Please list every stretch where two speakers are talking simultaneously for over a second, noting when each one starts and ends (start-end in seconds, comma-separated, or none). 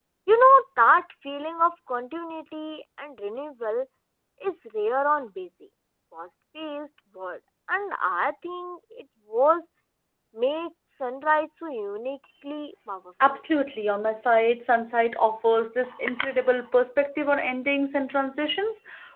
none